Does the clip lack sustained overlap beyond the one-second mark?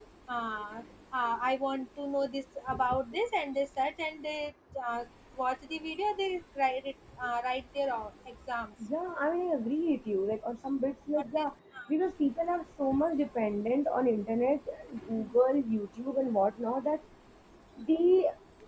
Yes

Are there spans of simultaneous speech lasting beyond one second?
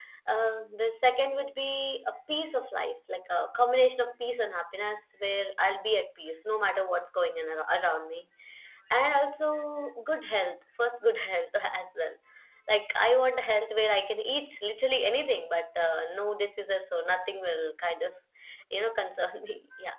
No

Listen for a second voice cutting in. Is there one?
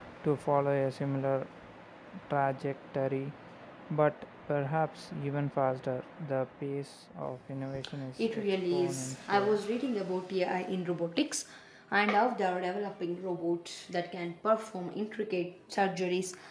Yes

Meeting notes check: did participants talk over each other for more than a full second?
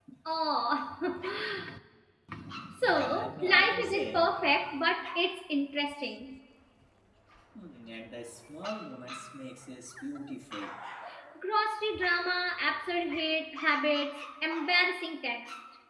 Yes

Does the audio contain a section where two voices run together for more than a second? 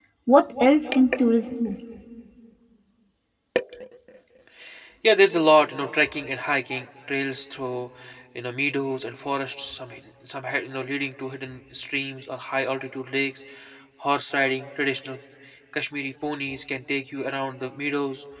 No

